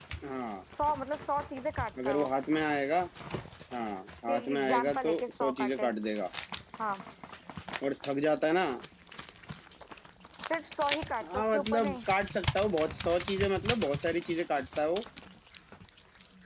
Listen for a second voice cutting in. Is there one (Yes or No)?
Yes